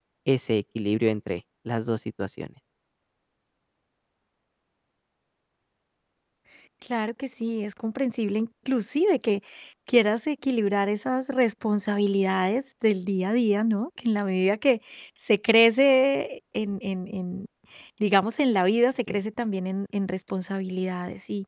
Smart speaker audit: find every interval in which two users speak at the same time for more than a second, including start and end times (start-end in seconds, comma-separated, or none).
none